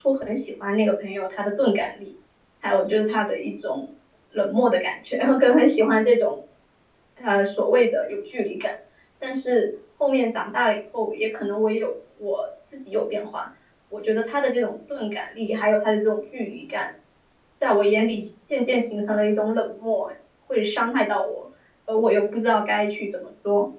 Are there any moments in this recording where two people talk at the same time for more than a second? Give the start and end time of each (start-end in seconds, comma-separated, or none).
none